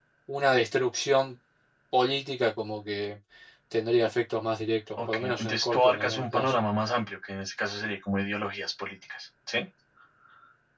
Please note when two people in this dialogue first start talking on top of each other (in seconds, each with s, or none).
5.0 s